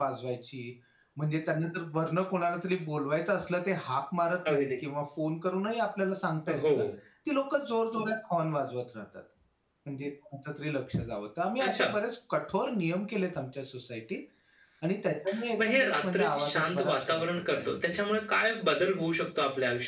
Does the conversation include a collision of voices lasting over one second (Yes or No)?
Yes